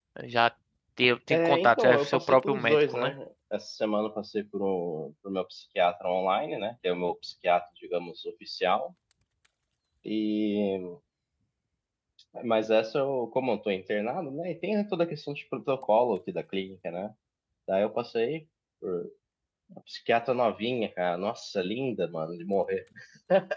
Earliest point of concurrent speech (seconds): 1 s

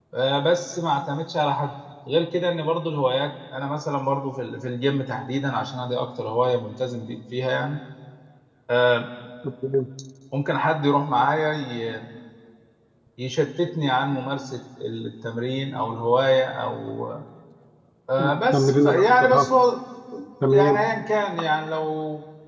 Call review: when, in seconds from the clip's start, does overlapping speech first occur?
18 s

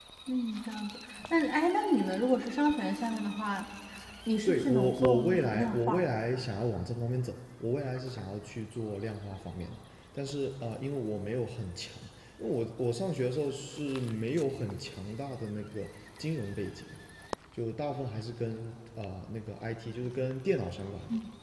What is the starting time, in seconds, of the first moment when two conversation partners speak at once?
4 s

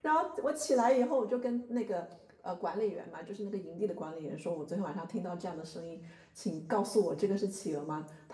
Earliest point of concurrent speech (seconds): none

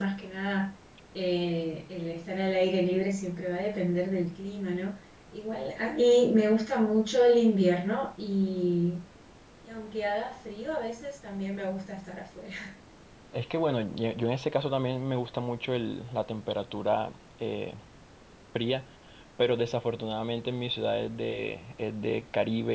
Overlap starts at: none

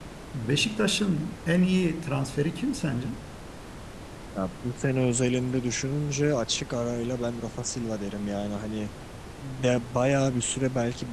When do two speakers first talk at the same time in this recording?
none

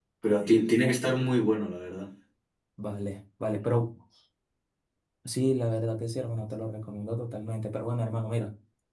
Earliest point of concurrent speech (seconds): none

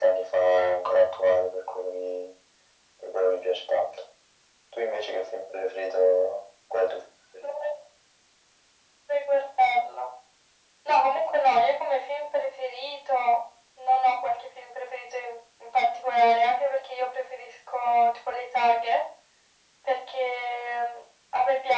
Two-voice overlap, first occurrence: none

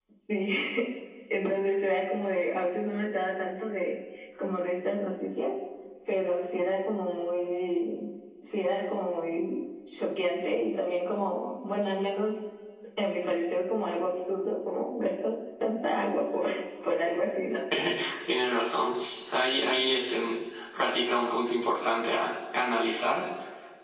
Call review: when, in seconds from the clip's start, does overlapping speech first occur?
none

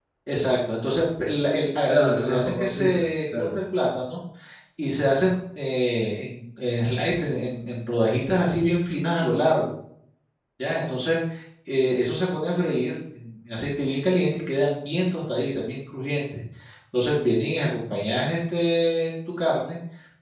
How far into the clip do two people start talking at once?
2 s

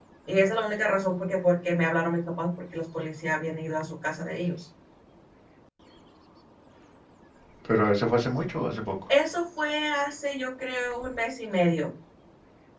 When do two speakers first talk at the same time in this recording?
none

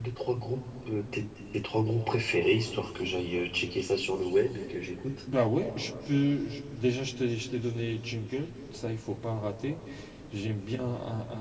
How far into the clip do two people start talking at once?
none

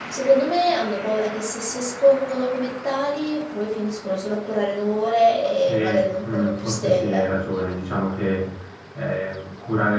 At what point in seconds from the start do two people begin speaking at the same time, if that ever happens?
6 s

